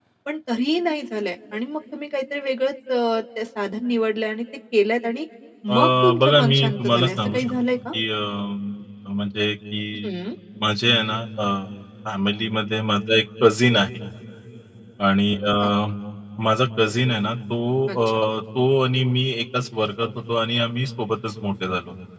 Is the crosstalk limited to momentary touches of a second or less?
No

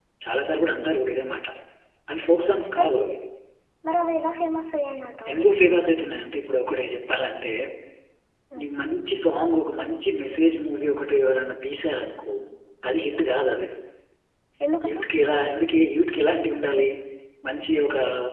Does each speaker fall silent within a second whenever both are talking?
Yes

